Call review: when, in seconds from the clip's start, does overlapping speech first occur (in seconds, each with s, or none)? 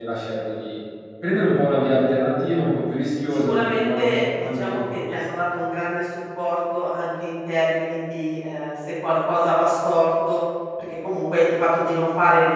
3.3 s